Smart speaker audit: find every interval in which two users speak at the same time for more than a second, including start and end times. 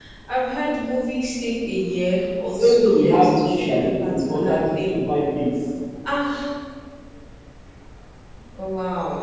2.5-5.0

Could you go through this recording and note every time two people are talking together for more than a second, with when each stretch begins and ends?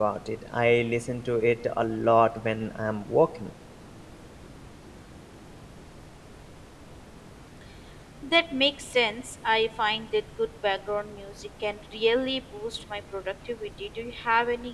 none

